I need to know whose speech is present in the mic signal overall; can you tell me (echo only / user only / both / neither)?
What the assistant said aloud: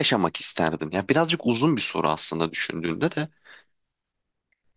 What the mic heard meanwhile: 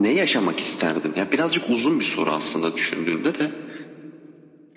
echo only